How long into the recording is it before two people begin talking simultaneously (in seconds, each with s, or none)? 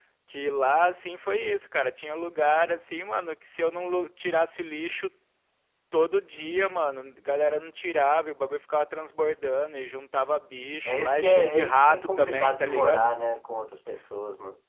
10.8 s